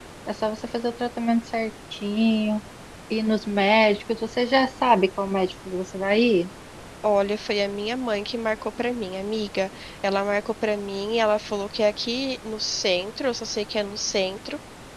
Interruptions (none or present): none